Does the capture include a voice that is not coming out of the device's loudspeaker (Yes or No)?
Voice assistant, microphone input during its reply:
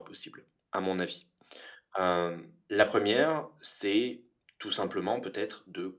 No